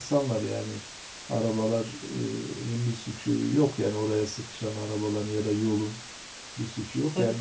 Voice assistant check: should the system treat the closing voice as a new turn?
No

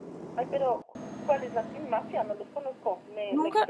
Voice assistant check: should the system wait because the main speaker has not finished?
No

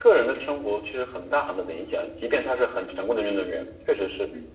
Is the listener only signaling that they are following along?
No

